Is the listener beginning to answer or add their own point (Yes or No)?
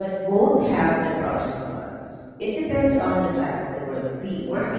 Yes